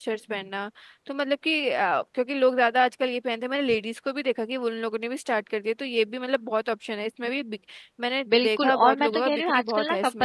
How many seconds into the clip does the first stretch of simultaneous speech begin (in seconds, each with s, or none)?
8.3 s